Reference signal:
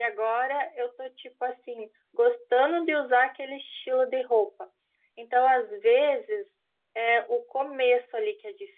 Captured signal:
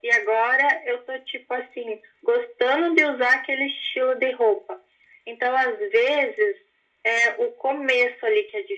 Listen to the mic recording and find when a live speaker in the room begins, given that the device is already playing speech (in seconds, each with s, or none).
none